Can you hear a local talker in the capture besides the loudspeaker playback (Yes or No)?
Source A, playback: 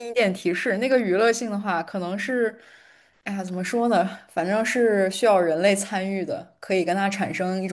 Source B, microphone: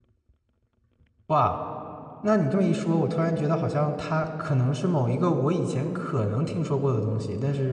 Yes